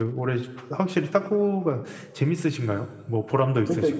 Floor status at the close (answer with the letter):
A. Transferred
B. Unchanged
A